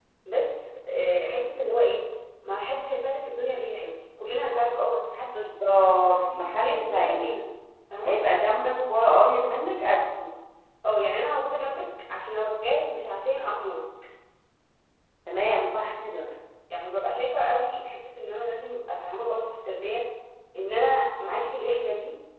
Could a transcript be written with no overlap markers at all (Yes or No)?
No